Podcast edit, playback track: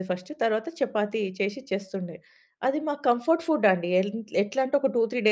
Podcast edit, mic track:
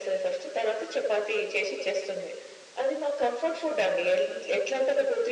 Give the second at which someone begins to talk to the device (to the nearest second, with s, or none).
none